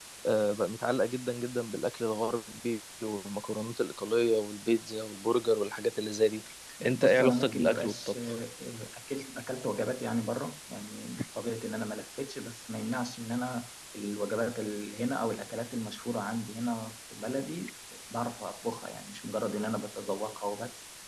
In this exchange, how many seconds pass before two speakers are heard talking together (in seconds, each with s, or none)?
6.9 s